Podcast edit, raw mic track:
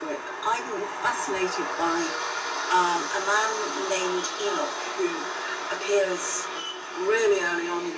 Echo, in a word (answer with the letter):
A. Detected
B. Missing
A